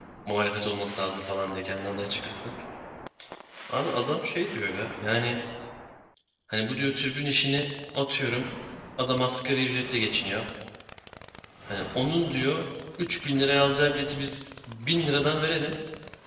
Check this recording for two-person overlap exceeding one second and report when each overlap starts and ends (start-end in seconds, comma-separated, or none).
none